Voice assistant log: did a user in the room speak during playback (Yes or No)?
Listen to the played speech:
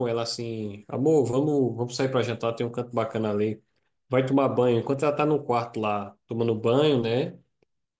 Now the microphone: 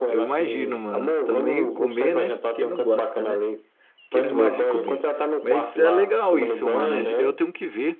Yes